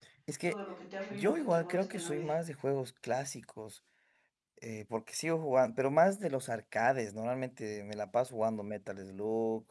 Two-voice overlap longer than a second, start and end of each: 1.1-2.3

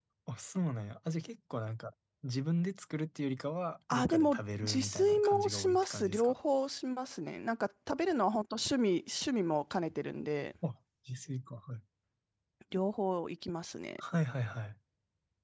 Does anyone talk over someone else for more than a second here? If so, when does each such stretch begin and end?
3.9-6.3

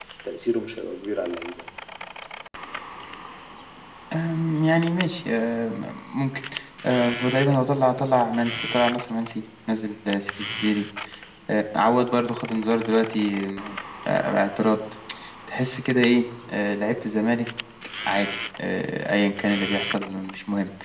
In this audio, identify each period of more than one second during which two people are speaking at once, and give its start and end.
none

